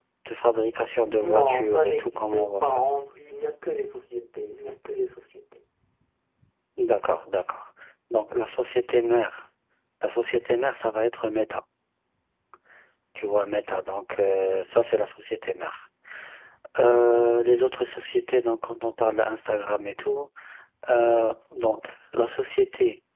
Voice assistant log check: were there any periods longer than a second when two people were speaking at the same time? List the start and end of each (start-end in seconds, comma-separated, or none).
1.2-2.8